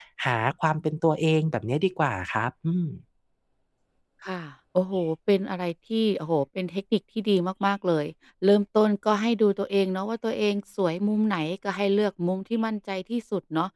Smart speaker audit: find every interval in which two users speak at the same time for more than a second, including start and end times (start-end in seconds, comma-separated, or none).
none